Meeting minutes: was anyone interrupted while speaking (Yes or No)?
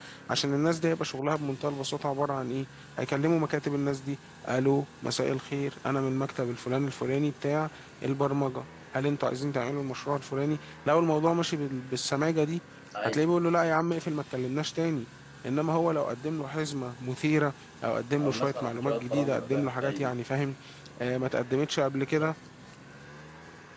Yes